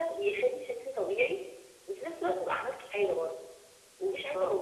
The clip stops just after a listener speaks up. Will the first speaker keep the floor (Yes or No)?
Yes